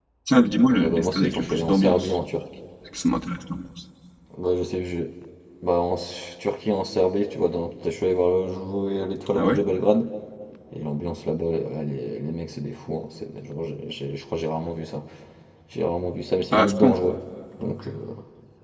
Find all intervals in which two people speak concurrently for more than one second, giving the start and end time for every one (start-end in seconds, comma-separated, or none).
0.7-2.2